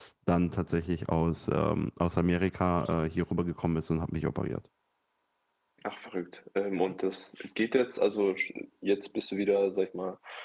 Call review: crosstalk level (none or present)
none